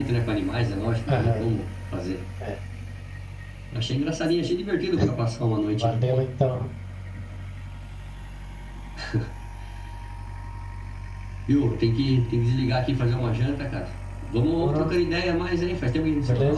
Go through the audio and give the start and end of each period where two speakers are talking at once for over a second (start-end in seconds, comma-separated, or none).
none